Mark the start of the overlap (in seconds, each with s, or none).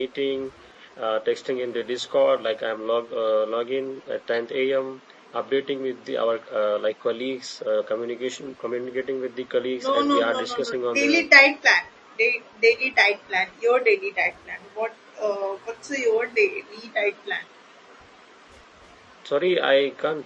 9.8 s